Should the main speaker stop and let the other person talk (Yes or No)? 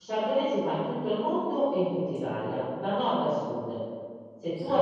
No